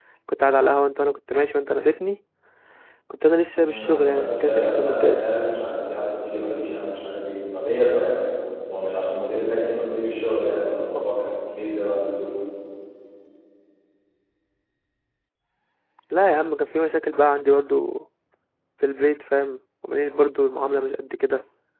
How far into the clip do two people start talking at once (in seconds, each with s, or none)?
3.5 s